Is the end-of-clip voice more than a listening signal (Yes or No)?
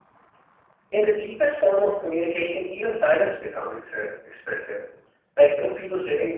No